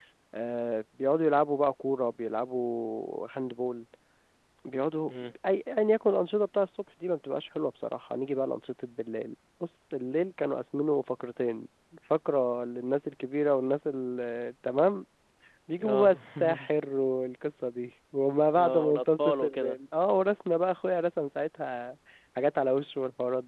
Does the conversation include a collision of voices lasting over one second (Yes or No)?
Yes